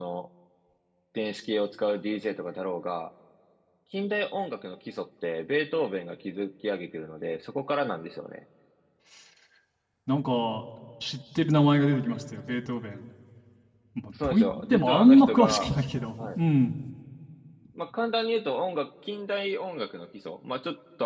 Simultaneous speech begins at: 14.2 s

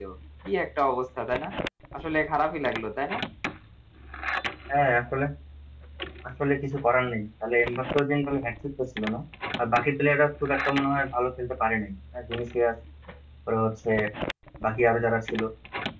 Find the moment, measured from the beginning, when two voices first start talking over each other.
none

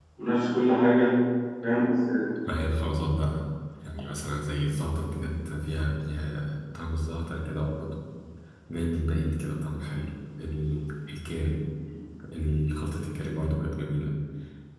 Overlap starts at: none

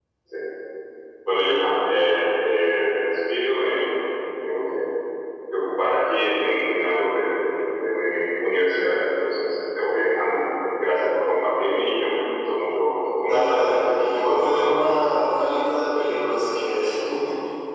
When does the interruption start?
13.2 s

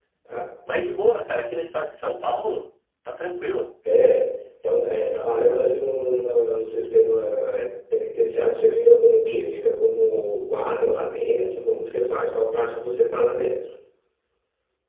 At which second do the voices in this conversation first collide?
none

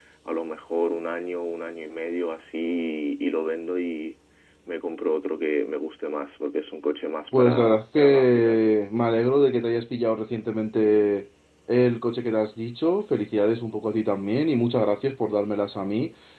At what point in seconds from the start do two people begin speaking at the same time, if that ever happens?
7.3 s

